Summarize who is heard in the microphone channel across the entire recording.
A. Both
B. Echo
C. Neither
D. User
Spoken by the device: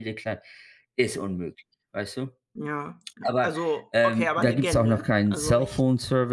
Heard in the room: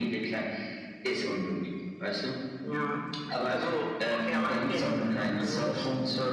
B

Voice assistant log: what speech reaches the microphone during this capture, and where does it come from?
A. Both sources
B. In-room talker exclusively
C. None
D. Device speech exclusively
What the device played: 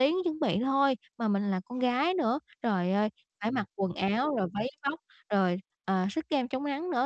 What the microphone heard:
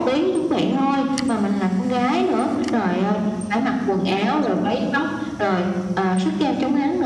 D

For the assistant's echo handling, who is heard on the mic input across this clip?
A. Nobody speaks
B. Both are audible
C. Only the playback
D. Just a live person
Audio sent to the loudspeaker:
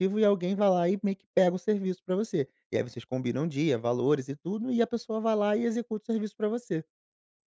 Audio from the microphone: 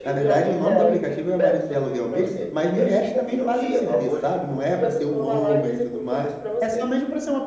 B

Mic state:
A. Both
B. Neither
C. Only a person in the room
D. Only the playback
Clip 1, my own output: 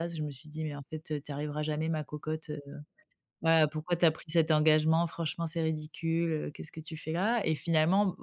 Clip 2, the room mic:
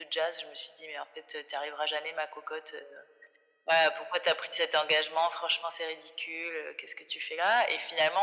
D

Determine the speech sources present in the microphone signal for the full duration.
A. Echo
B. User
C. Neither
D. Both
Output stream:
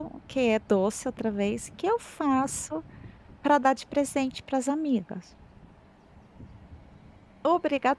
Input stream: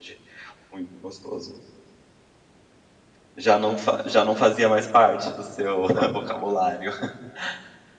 B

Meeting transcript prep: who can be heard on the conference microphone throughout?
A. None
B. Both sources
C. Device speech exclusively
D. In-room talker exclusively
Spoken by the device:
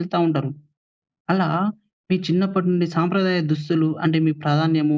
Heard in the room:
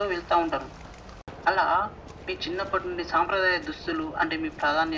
C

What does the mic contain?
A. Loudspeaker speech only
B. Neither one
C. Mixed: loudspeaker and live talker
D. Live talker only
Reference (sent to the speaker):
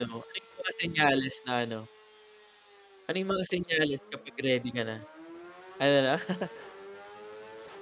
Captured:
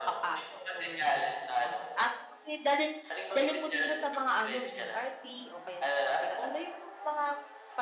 C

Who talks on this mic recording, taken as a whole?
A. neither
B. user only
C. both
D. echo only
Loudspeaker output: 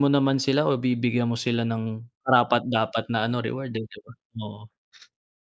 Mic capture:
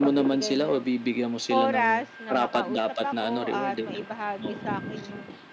C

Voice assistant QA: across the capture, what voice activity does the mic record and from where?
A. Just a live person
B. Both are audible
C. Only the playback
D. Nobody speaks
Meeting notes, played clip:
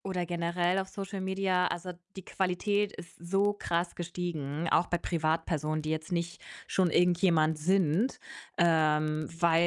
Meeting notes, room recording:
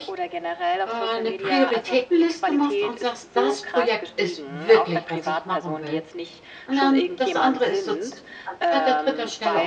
B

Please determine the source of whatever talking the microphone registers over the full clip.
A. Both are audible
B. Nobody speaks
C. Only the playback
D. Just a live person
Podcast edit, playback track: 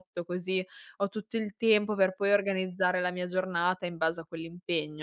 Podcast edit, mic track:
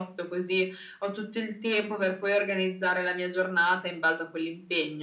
C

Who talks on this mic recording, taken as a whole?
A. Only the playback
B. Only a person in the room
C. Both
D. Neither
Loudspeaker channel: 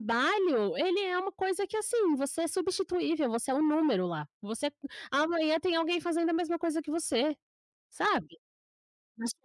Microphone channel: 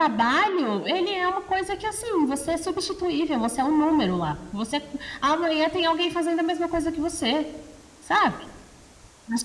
A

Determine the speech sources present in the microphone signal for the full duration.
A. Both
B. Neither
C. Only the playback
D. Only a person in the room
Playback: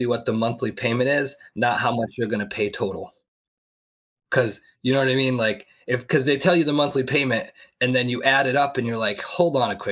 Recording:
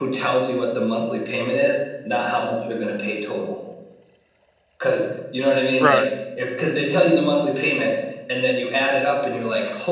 A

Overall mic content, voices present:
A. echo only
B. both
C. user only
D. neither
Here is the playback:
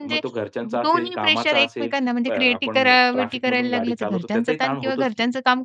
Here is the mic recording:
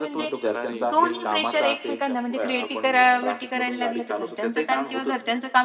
B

